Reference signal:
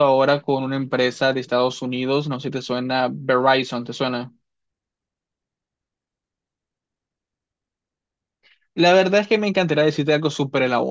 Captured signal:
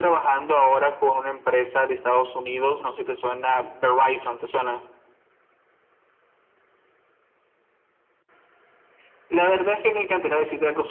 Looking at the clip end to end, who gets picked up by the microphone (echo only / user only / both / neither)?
echo only